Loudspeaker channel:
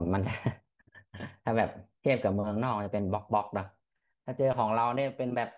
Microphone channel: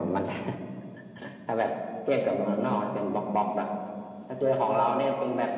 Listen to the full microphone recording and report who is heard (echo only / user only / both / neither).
echo only